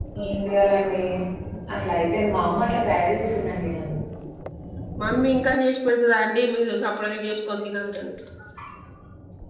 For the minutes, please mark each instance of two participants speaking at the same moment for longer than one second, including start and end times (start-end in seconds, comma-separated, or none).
none